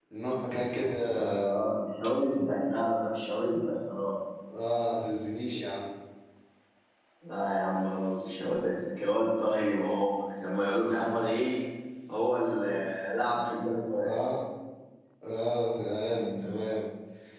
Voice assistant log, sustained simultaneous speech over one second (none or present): none